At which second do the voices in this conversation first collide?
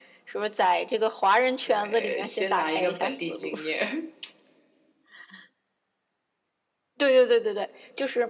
1.7 s

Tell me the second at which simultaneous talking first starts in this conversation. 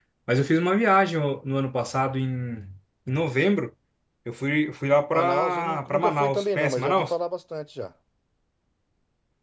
5.1 s

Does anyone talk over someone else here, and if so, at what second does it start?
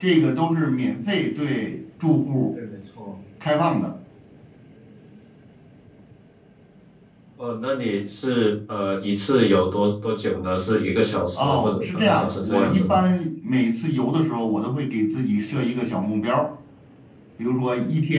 11.3 s

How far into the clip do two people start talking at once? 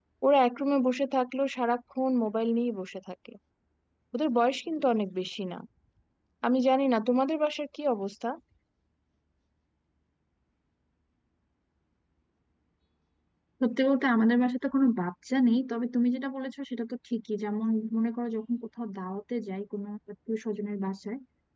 none

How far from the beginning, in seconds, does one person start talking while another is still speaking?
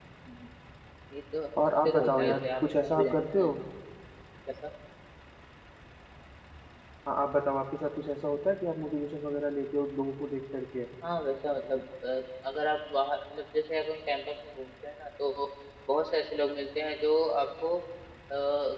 1.8 s

